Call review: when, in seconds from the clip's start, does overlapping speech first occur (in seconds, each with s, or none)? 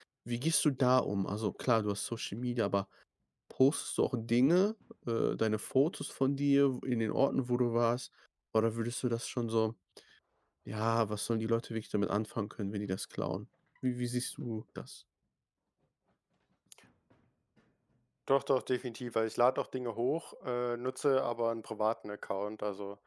none